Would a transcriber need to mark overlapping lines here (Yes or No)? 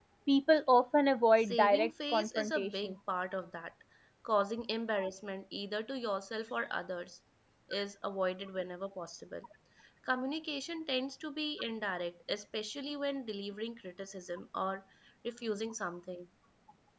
Yes